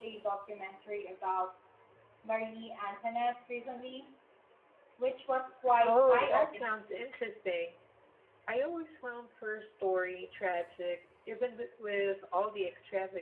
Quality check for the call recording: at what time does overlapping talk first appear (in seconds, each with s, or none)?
5.8 s